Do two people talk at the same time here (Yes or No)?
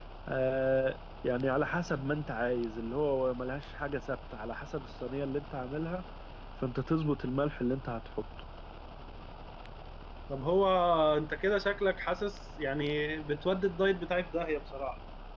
No